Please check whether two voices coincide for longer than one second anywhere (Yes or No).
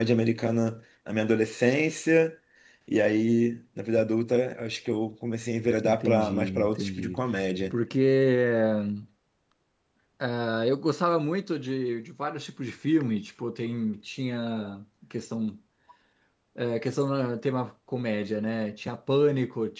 Yes